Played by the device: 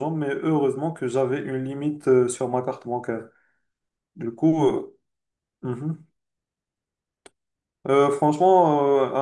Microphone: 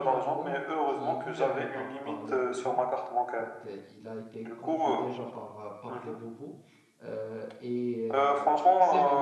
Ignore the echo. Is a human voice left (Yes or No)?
Yes